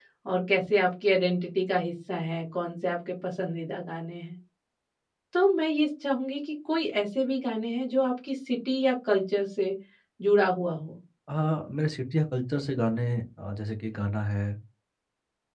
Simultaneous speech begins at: none

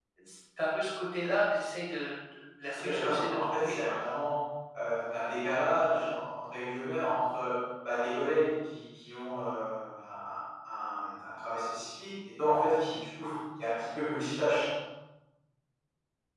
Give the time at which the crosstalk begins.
3 s

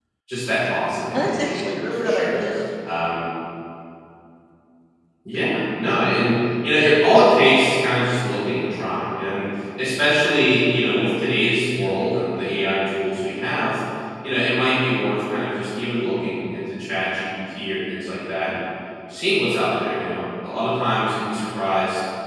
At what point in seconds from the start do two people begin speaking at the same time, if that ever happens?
1 s

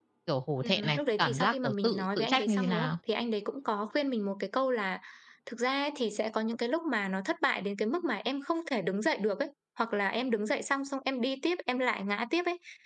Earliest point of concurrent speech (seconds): 1 s

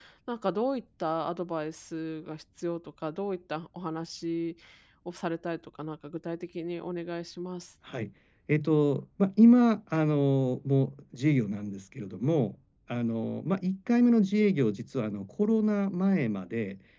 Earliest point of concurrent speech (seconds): none

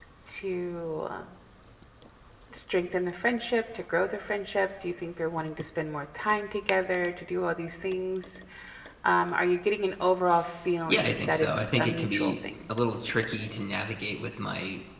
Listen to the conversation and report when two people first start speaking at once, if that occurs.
11 s

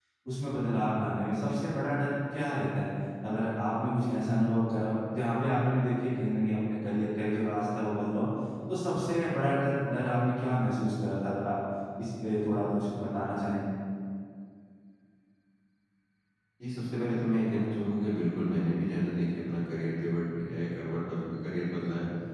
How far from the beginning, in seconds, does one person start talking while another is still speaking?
none

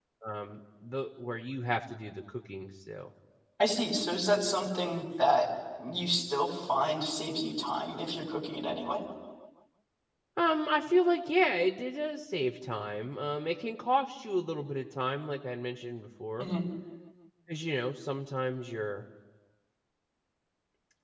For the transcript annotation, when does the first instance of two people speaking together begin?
none

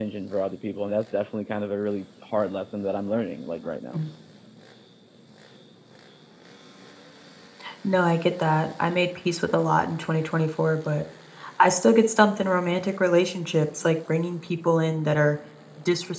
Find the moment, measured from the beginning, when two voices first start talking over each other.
none

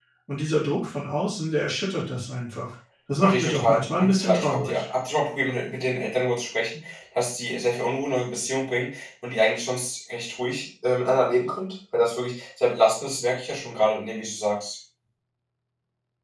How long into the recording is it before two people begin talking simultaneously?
3 s

